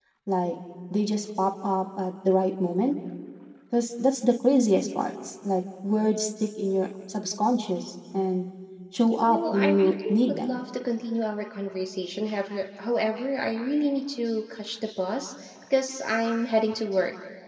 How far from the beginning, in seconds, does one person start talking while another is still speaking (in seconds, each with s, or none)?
9.3 s